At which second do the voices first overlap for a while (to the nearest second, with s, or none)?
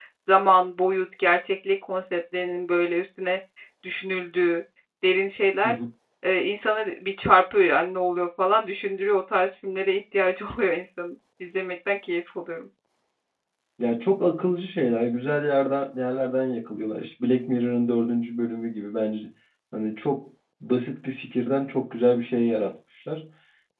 none